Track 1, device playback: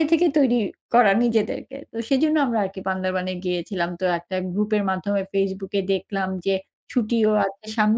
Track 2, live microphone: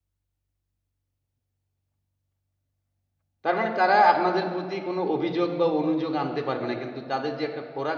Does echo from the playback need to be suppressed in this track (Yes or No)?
No